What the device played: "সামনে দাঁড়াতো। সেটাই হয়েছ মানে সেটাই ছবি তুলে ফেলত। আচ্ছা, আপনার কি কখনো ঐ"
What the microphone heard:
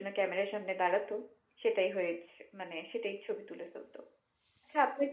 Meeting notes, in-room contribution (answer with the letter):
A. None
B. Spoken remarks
A